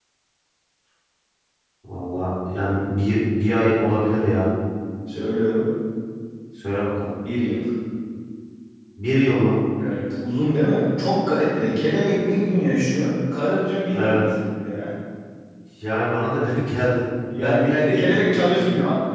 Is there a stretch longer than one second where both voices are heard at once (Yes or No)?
Yes